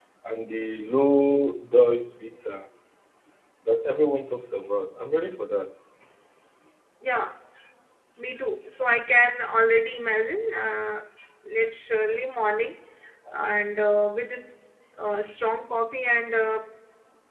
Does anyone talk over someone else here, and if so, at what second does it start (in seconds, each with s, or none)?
none